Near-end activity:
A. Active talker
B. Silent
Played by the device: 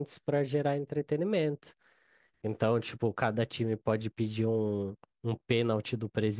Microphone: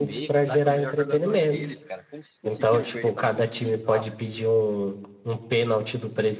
A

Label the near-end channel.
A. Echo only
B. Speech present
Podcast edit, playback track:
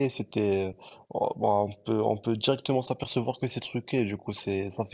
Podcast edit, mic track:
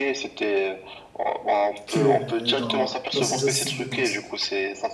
B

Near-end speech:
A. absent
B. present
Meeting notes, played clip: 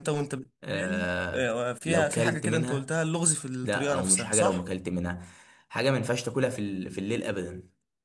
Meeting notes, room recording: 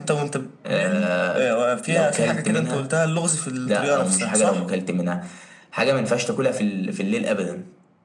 A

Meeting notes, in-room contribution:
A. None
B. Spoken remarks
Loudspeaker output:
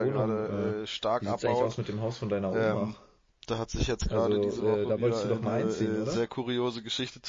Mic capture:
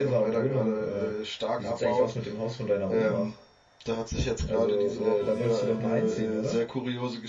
A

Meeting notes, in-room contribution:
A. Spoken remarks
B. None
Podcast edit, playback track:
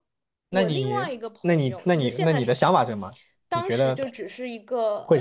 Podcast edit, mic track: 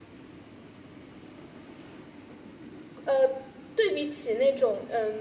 A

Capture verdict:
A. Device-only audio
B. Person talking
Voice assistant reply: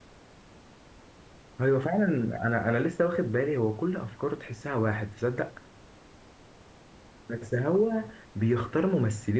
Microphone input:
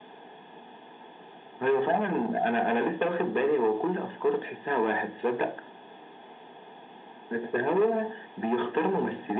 A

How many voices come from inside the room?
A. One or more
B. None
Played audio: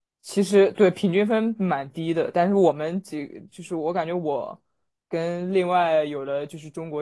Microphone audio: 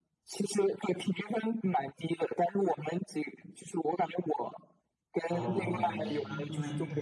A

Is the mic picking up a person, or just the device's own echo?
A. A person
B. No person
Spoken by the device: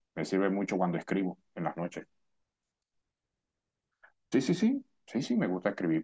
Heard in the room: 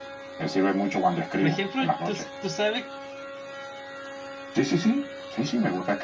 A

